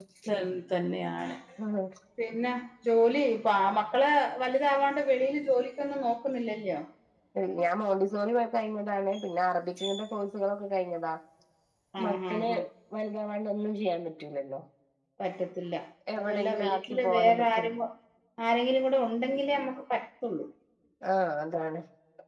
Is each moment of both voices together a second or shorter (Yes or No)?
No